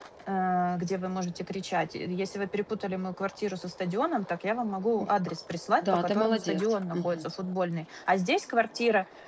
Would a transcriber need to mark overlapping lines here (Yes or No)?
Yes